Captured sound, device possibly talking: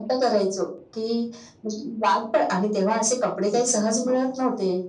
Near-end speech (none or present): present